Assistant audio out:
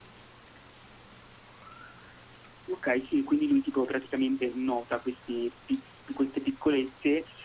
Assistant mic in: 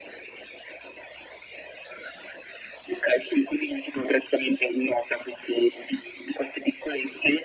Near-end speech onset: none

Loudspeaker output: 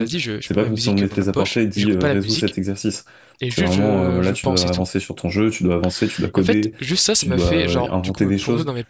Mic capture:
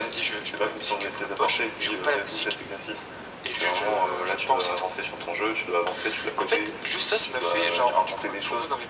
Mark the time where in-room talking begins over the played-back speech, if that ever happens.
none

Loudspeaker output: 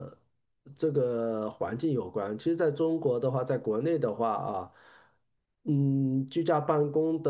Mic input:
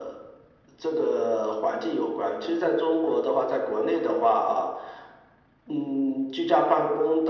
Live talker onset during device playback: none

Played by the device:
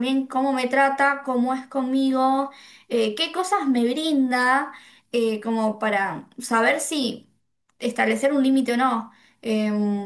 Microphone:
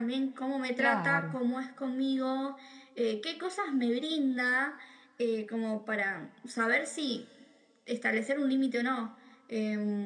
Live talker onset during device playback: 0.8 s

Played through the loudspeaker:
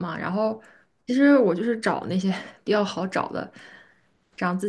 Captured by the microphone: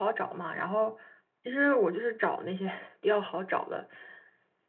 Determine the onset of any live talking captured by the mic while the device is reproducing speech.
none

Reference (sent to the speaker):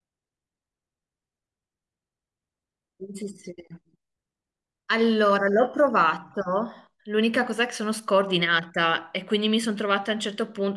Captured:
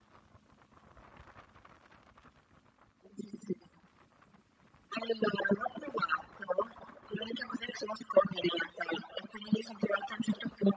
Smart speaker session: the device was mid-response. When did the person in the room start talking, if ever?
none

